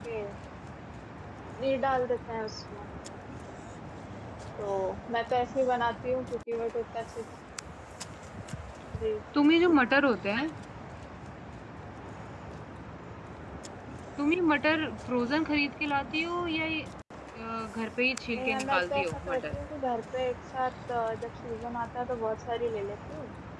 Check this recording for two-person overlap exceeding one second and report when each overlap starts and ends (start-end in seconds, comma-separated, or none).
18.3-19.6